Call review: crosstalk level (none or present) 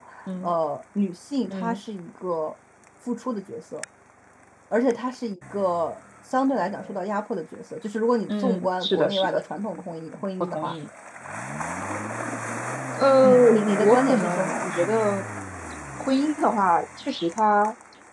present